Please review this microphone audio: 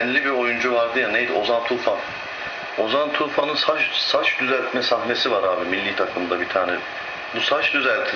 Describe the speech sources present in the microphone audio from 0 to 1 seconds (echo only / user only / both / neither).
echo only